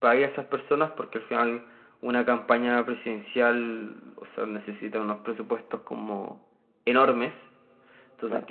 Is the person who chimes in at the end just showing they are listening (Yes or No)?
Yes